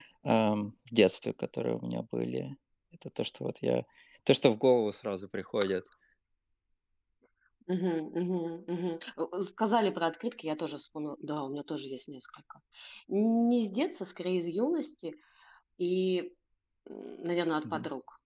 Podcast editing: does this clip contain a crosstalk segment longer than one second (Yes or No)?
No